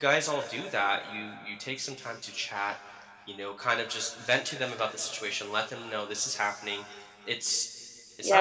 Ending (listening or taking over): taking over